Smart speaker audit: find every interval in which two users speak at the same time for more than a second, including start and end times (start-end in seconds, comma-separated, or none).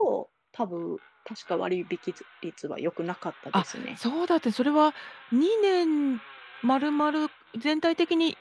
none